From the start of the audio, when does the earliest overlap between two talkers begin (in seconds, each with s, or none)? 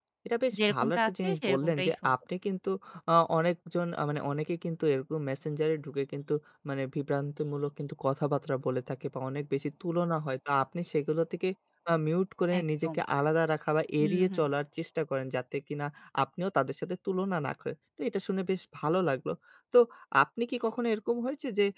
0.6 s